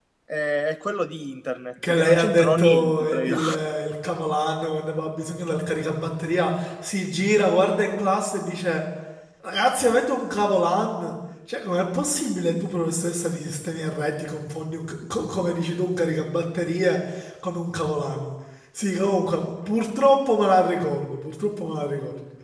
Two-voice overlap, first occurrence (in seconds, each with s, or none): 1.8 s